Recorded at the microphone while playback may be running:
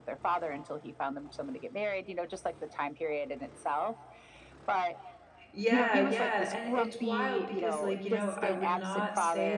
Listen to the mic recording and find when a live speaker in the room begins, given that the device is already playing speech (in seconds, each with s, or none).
5.5 s